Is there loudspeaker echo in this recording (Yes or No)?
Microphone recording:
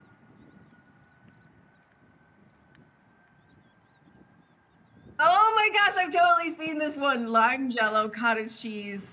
No